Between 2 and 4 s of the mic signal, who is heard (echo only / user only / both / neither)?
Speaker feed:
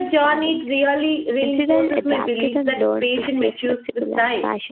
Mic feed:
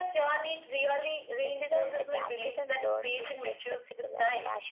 echo only